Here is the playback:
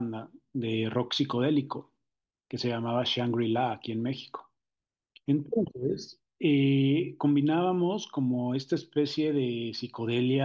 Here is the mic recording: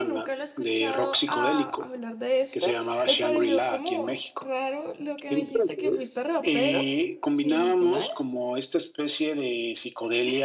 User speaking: Yes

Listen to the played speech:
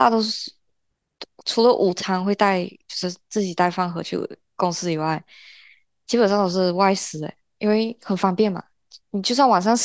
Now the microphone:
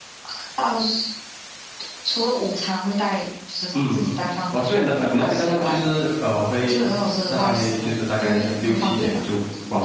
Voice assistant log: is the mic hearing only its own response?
No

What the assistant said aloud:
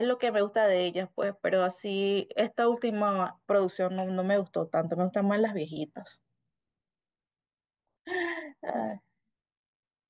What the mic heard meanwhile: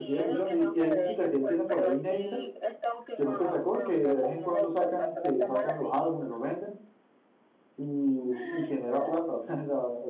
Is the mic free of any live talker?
No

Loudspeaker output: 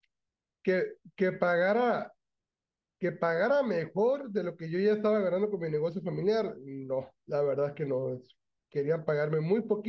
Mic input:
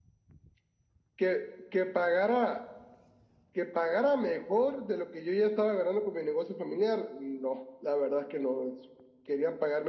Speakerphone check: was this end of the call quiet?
Yes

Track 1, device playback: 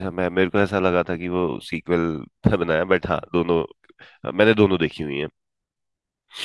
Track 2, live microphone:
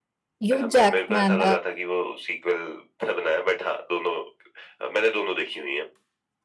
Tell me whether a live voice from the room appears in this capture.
Yes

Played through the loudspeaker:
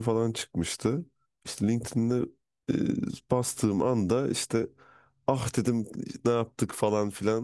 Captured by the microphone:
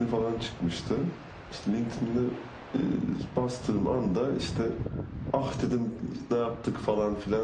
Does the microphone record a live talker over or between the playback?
No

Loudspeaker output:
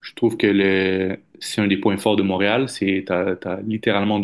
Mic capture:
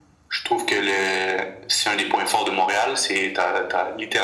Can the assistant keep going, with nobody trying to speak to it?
Yes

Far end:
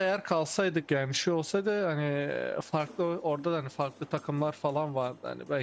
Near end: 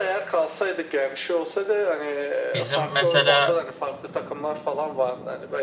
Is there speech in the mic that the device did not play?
Yes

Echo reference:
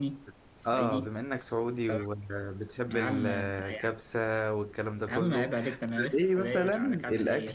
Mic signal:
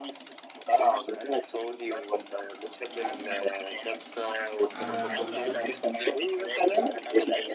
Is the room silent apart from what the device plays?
No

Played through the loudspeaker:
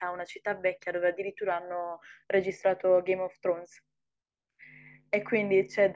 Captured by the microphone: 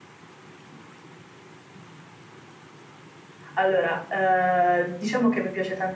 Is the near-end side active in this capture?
Yes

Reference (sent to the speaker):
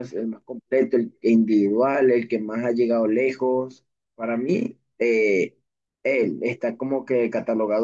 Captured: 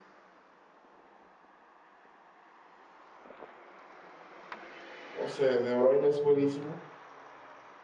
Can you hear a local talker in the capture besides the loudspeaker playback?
Yes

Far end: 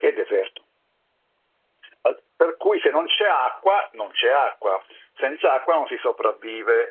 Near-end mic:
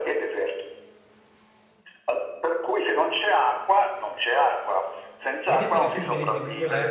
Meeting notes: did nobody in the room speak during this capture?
No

